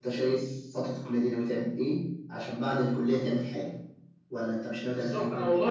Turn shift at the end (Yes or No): Yes